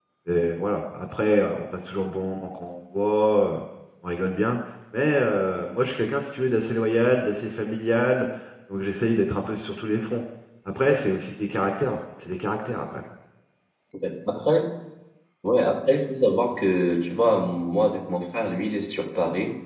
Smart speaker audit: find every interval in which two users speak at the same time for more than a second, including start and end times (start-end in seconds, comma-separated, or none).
none